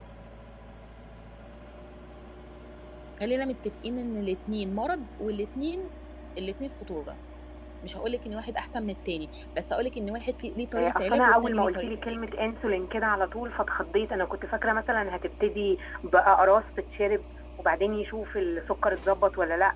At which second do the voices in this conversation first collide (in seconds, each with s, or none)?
10.8 s